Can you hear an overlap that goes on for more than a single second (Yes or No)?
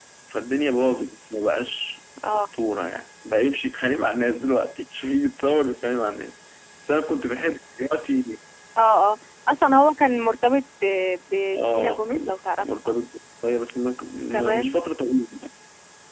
Yes